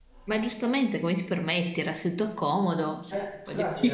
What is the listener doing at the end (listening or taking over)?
taking over